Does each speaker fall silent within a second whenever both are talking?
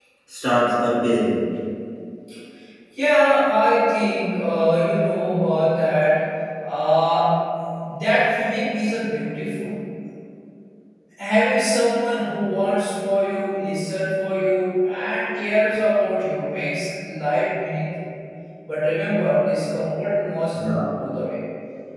Yes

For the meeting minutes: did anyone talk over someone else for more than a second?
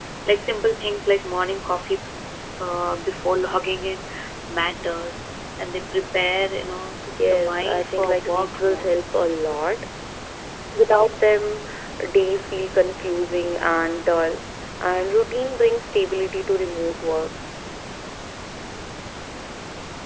Yes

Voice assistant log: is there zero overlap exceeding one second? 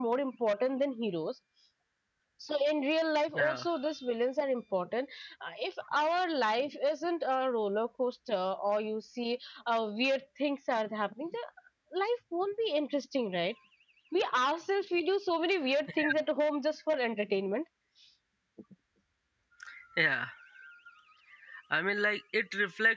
Yes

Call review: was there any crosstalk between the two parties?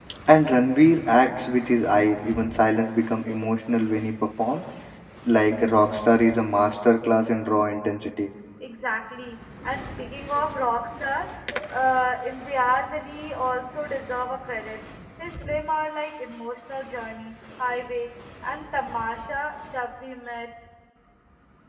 No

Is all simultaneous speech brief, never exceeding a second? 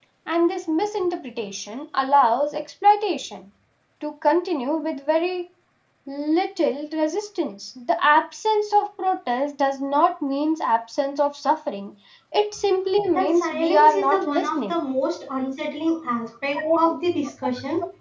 No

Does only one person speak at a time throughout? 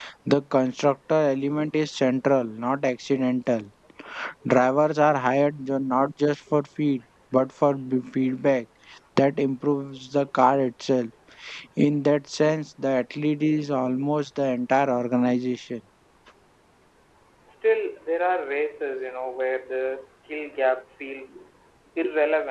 Yes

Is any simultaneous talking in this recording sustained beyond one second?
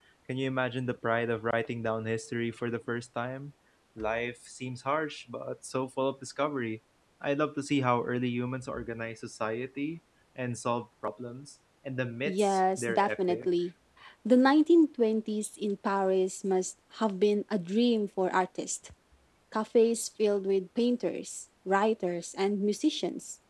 Yes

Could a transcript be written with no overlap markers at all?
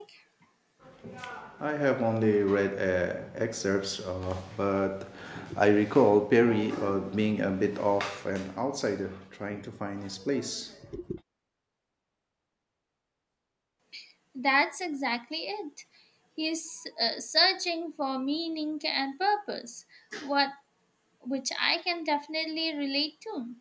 Yes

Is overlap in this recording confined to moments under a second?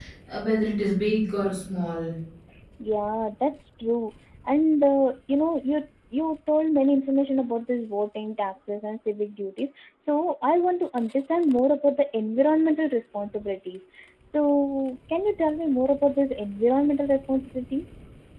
Yes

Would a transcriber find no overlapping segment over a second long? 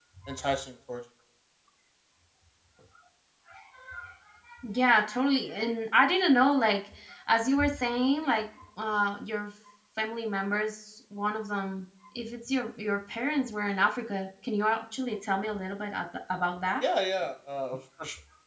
Yes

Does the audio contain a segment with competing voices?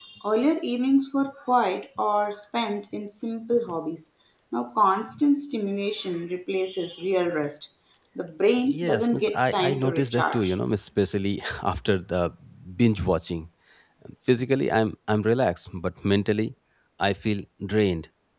Yes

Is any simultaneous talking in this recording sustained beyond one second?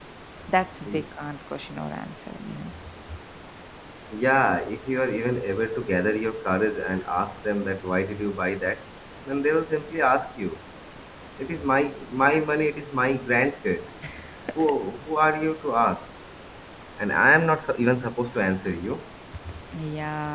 No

